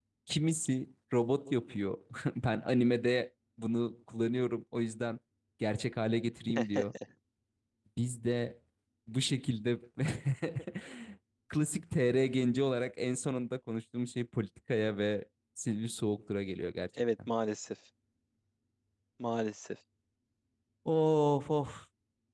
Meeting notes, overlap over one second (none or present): none